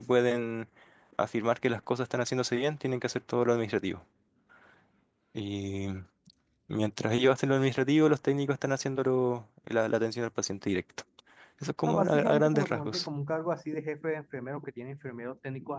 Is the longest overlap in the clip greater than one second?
Yes, from 11.9 s

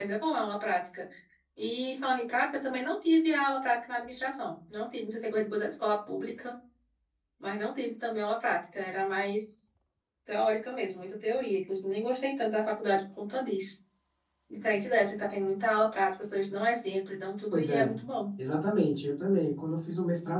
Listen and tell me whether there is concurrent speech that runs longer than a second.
No

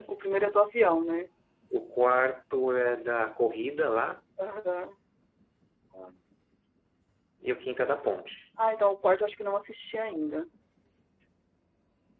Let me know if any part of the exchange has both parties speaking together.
No

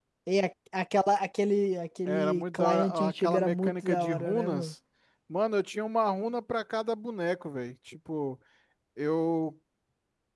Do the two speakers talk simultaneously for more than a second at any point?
Yes, from 2.1 s

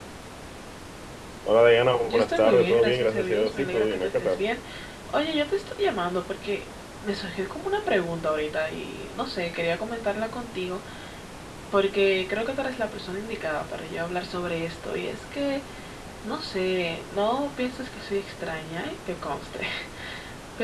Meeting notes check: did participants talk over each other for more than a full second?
Yes, from 2.0 s

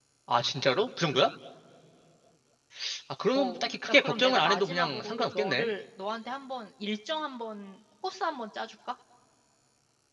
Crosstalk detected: Yes, from 3.3 s

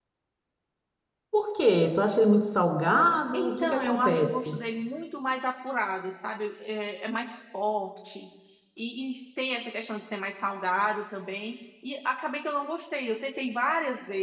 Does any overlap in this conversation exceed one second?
Yes, from 3.3 s

